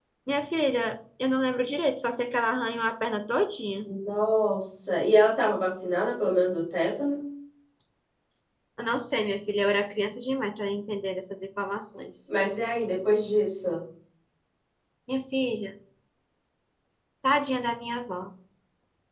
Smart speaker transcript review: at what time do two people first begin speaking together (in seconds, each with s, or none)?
none